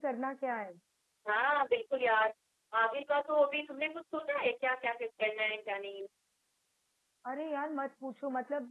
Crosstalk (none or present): none